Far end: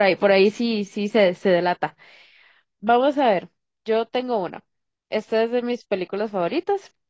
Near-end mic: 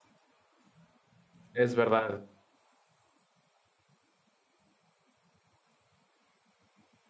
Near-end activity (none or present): present